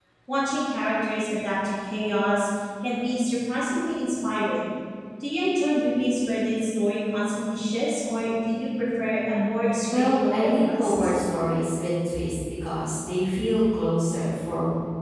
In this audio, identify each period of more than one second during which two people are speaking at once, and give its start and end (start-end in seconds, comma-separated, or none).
9.9-11.1